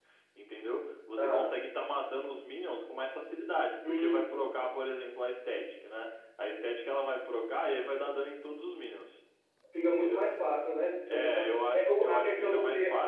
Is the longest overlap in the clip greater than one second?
Yes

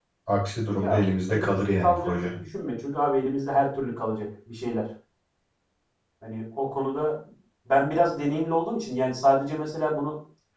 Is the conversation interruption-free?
No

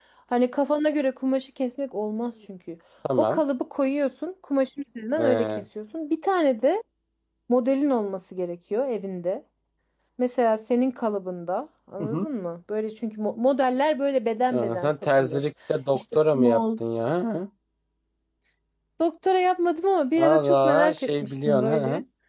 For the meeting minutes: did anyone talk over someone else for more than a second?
Yes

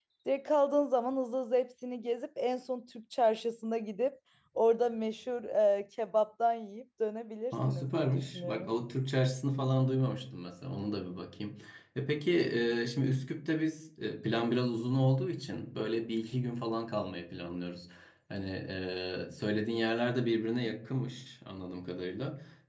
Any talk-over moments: Yes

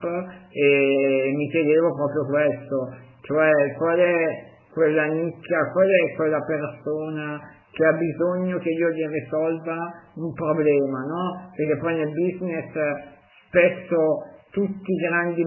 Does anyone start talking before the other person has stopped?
No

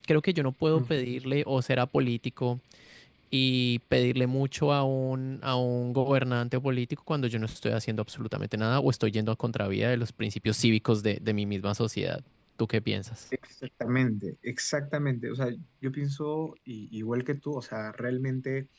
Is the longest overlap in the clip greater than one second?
No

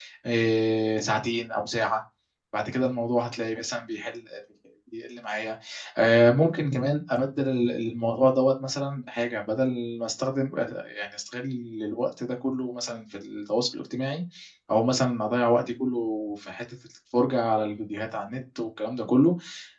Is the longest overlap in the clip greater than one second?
No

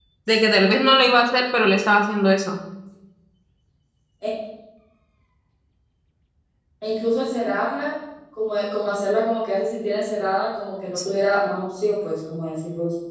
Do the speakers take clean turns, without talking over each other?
Yes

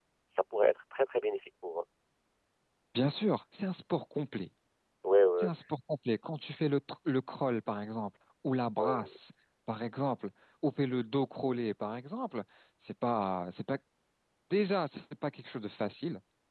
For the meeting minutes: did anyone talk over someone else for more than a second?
No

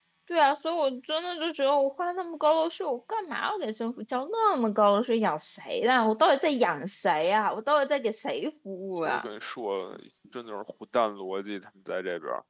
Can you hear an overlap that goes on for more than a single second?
No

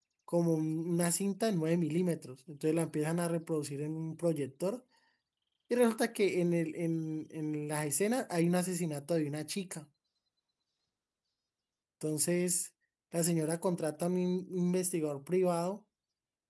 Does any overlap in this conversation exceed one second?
No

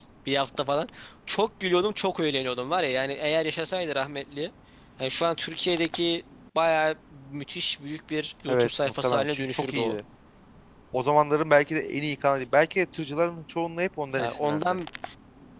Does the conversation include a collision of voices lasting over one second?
Yes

